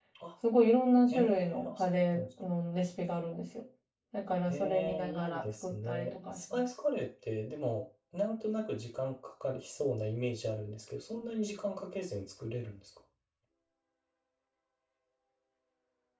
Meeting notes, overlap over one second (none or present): present